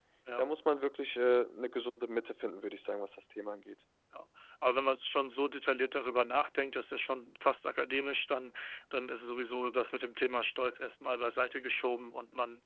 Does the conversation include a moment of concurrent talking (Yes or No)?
No